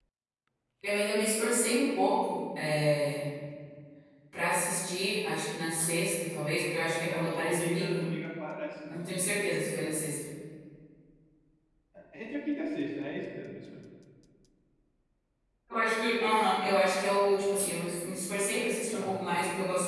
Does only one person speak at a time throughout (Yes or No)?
No